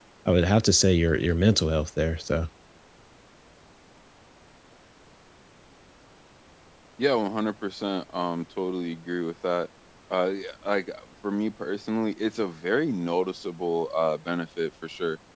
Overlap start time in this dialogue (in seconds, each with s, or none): none